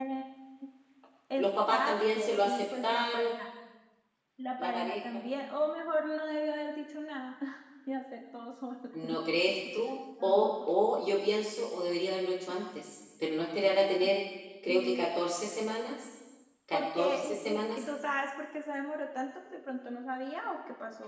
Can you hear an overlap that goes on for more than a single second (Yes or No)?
Yes